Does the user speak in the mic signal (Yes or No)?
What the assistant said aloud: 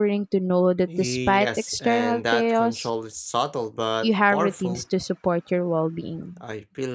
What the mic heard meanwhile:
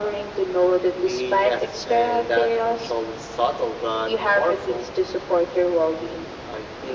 No